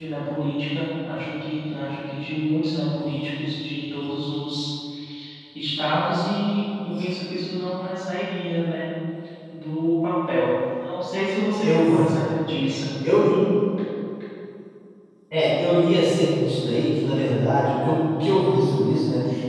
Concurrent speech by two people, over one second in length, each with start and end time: none

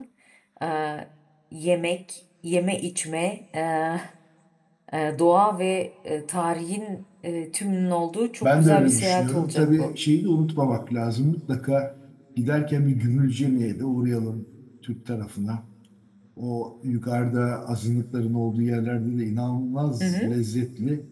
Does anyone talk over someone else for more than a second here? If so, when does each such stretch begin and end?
8.4-9.9

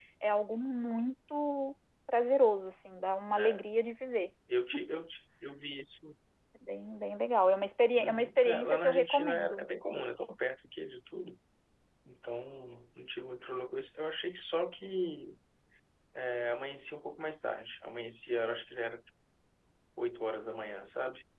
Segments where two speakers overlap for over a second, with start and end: 8.0-9.7

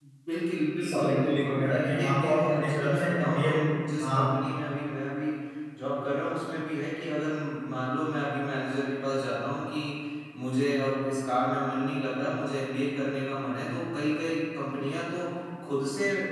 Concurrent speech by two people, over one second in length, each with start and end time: 0.8-3.5

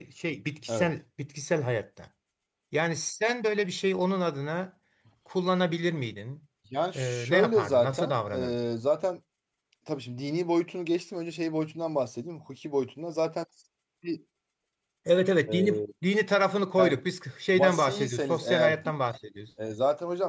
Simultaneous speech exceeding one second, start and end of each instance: 7.0-8.5, 17.6-18.8

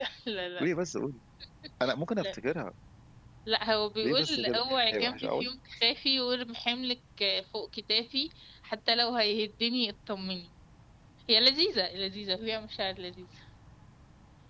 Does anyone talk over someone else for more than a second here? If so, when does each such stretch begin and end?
4.0-5.5

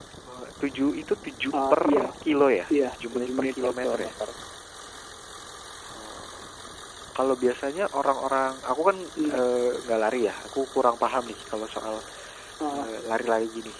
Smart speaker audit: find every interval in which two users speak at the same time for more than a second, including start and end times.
2.7-4.1

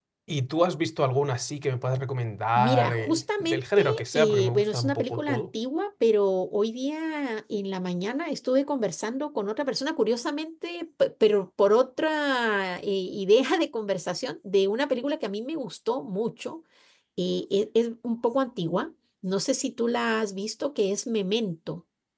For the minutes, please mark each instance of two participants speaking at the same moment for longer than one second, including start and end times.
2.6-5.4

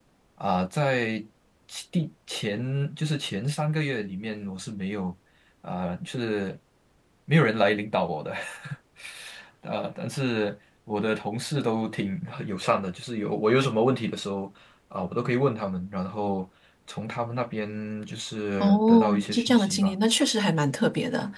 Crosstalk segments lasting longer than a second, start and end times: 18.6-19.9

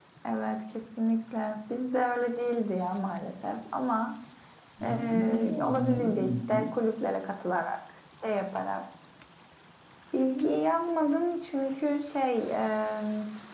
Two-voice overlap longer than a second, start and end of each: 4.8-6.7

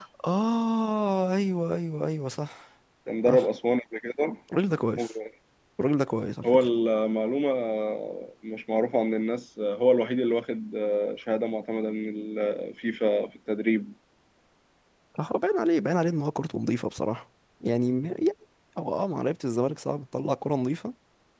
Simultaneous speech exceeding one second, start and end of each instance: none

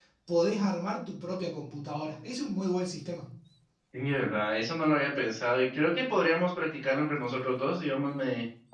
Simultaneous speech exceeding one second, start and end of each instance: none

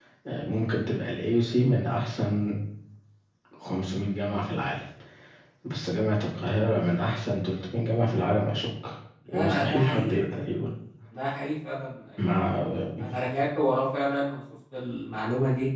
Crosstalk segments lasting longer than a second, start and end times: 9.3-10.5

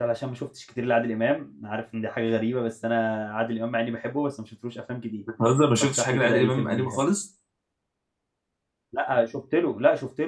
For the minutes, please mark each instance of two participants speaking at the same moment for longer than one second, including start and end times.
5.8-7.0

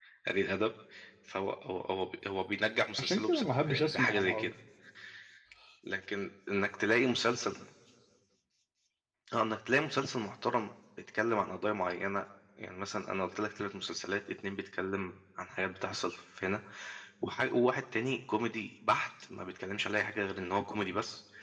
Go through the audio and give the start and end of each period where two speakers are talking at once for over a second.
3.0-4.5

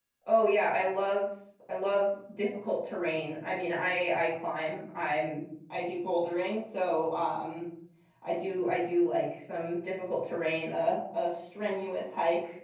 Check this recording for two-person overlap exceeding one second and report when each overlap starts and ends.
none

